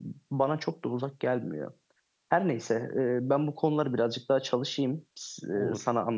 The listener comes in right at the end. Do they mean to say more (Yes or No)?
No